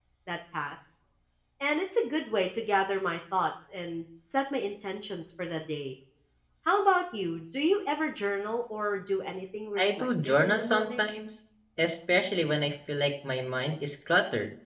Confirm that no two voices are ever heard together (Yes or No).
No